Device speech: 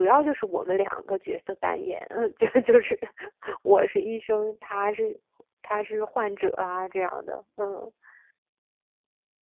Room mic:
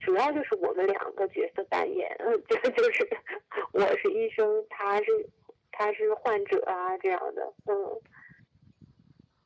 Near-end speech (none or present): none